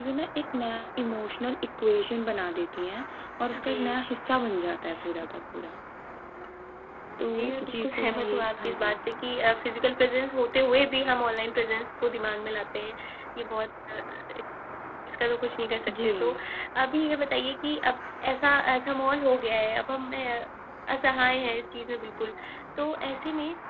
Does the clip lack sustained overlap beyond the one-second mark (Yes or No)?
No